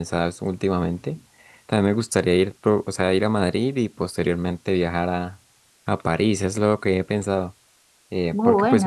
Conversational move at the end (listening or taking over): listening